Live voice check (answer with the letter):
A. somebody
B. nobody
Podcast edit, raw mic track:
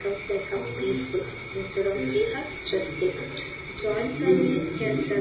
A